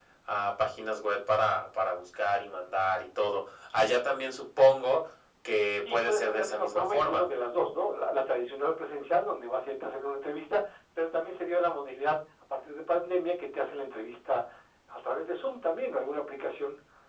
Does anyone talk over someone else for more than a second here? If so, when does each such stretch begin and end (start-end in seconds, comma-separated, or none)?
5.9-7.2